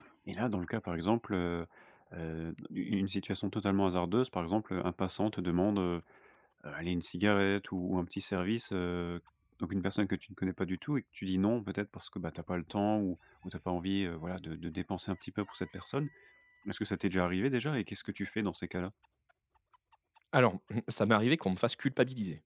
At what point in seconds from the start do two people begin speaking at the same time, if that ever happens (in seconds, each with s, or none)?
none